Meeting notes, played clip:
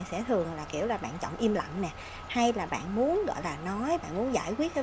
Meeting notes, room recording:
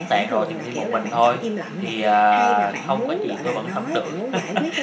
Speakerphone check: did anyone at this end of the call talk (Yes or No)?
Yes